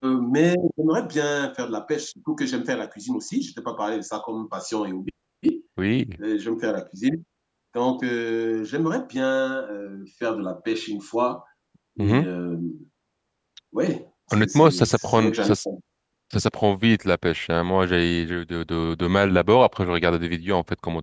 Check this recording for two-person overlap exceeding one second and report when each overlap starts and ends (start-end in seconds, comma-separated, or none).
14.3-15.5